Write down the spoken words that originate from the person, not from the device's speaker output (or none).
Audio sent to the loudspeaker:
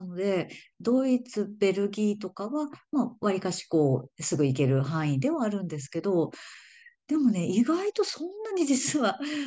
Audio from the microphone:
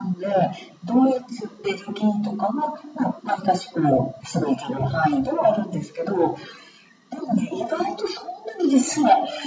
none